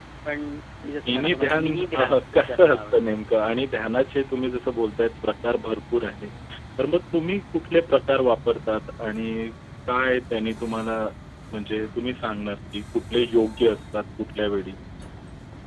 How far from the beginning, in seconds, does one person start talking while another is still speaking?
1 s

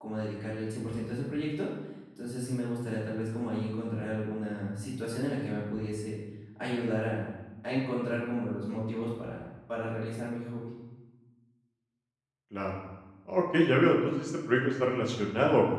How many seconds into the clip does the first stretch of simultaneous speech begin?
none

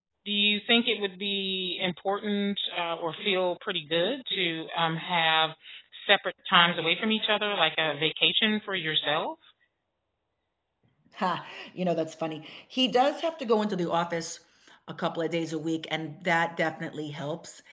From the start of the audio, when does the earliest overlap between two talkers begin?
none

